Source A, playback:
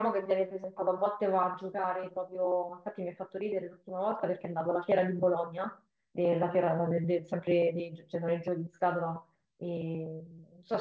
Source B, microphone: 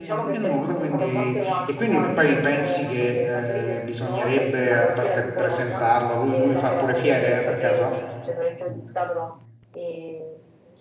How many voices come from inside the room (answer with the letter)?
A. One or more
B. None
A